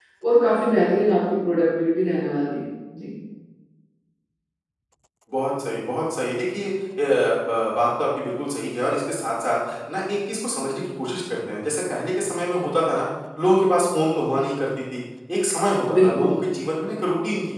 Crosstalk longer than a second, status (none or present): none